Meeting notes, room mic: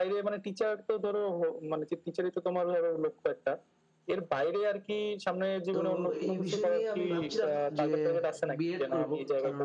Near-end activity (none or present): present